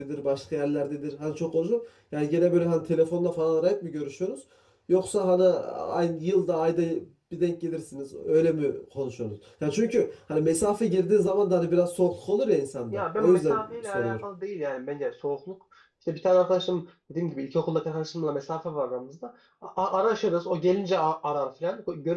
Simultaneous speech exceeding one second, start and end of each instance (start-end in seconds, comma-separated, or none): 12.9-14.2